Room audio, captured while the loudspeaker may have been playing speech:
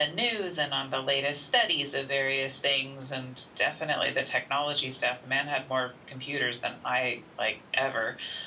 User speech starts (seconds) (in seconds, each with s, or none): none